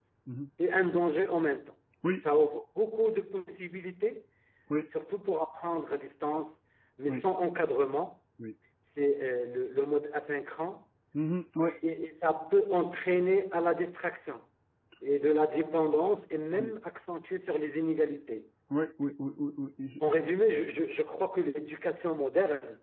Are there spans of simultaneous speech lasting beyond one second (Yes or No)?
No